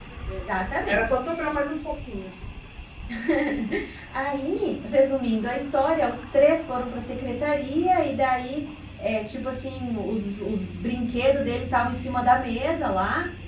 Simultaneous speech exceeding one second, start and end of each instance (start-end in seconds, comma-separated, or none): none